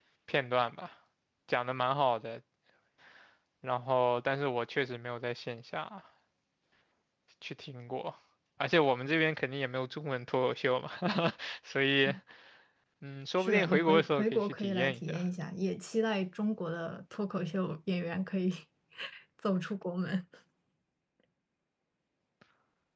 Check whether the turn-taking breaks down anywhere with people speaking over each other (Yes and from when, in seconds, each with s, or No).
Yes, from 13.4 s